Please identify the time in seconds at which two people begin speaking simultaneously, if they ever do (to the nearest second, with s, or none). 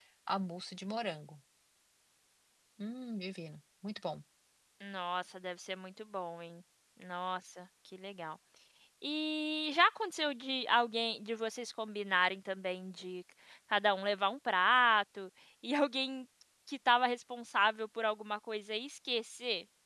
none